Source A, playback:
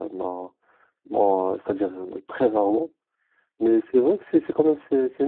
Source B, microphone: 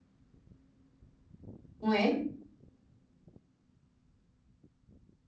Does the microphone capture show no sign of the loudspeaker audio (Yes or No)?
Yes